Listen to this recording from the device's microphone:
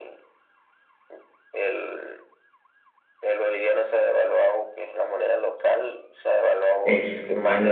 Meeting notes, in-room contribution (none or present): present